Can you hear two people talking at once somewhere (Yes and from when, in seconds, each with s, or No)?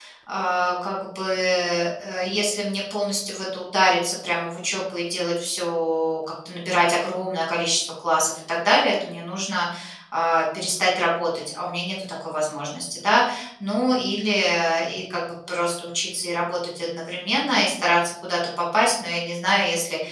No